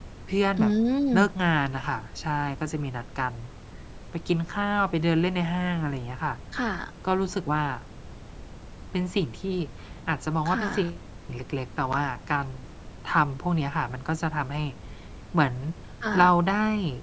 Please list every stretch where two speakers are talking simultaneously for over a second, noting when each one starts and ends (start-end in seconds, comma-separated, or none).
none